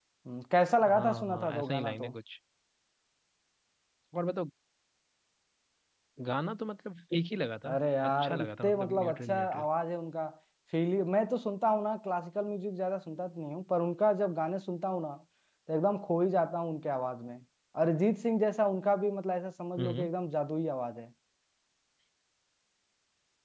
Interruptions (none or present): present